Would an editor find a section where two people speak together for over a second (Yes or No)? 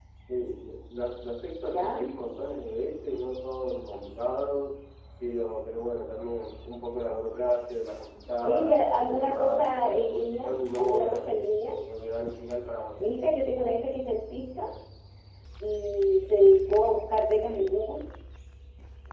Yes